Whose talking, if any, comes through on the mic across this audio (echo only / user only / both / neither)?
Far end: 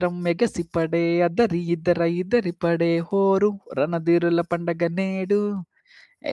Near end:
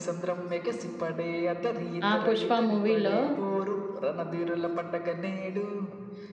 both